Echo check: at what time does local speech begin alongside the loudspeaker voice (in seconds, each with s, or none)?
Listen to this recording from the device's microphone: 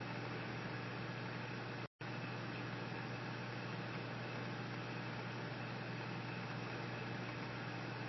none